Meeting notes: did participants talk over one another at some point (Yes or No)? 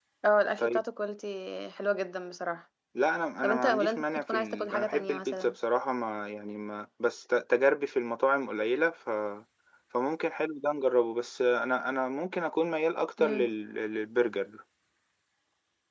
Yes